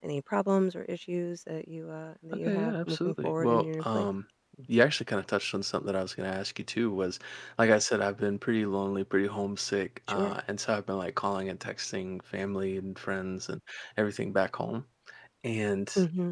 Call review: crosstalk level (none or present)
present